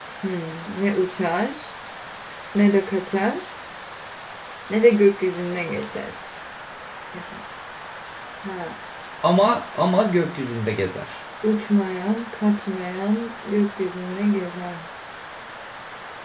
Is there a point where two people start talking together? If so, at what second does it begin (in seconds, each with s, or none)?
none